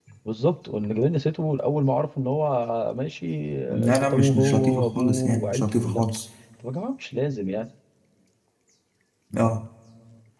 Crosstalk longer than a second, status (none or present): present